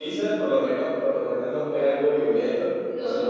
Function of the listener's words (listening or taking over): listening